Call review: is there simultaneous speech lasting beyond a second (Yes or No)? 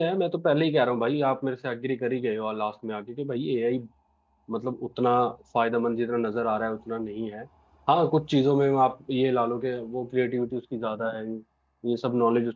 No